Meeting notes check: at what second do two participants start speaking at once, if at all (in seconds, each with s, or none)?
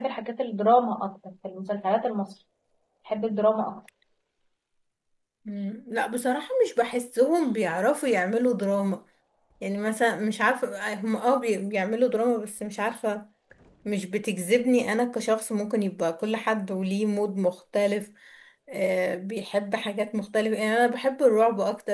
none